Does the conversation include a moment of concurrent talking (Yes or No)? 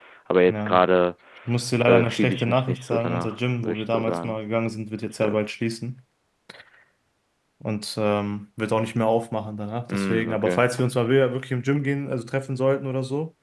Yes